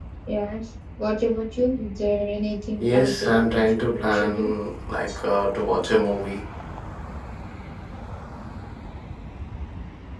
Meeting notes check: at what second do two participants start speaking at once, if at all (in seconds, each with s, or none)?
2.8 s